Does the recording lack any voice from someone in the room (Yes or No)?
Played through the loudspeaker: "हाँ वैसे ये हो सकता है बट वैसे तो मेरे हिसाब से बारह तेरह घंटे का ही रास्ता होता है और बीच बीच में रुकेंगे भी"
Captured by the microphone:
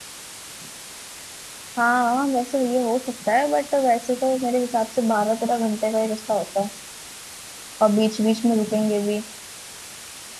Yes